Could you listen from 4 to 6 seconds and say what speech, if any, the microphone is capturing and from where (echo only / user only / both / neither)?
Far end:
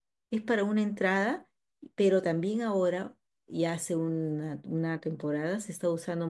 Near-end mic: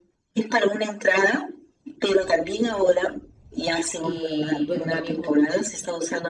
both